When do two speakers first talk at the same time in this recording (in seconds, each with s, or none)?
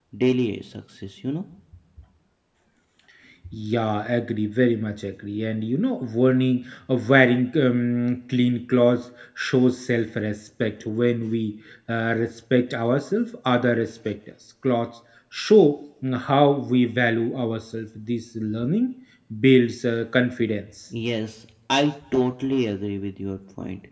none